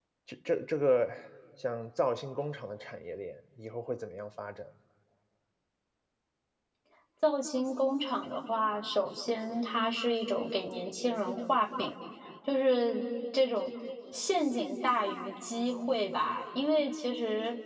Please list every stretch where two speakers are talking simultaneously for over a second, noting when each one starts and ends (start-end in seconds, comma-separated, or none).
none